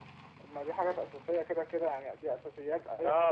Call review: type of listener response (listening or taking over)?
taking over